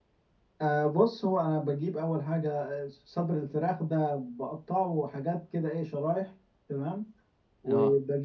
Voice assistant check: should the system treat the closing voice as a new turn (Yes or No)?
No